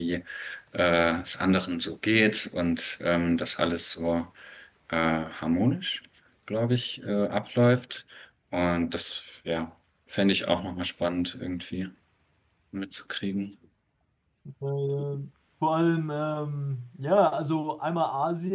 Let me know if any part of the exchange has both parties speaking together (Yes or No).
No